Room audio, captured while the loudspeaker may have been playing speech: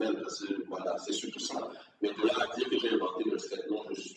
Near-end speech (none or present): none